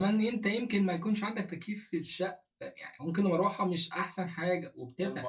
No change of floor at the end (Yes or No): No